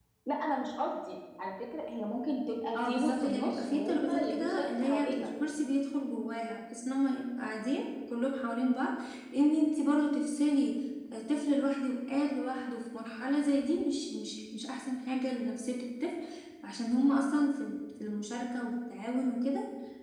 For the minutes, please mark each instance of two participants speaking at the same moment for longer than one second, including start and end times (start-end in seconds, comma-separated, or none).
2.8-5.3